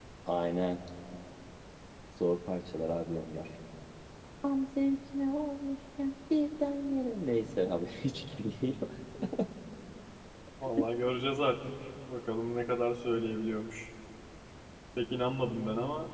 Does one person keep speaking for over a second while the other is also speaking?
No

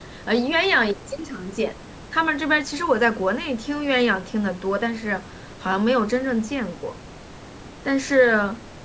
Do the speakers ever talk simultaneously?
No

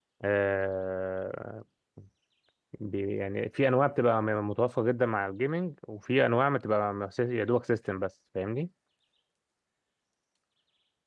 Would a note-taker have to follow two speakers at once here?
No

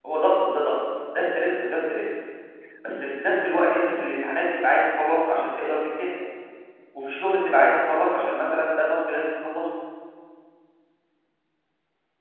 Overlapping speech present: No

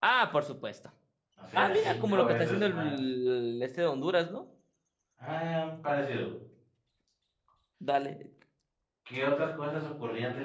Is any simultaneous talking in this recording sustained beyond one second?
Yes, from 1.5 s

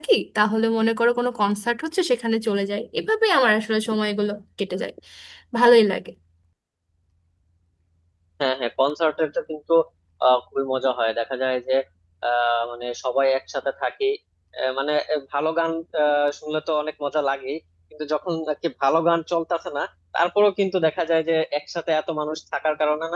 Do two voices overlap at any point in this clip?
No

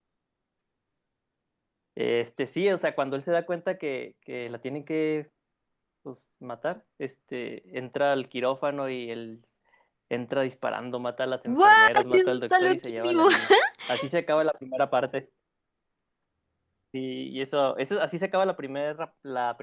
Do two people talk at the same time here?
Yes, from 11.5 s

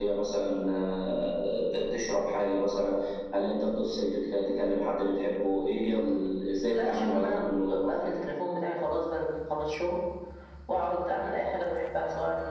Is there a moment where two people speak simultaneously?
Yes, from 6.7 s

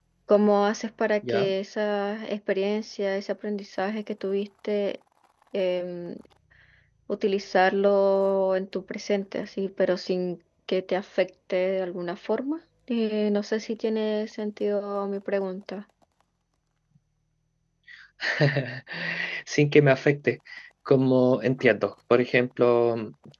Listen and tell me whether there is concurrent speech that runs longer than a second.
No

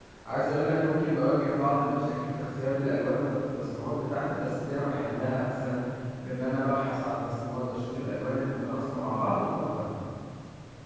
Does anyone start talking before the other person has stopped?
No

